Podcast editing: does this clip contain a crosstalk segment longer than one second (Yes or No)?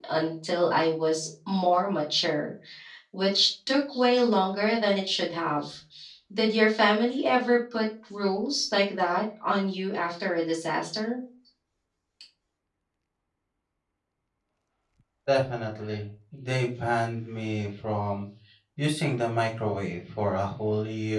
No